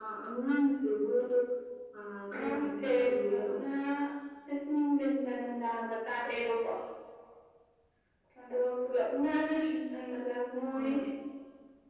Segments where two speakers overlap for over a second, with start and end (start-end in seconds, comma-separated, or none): 2.3-3.5